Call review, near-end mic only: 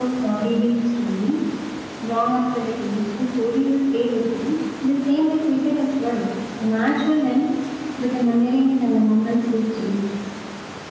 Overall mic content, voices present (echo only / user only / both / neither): echo only